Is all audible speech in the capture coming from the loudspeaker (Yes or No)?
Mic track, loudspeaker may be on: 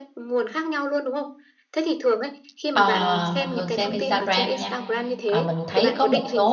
No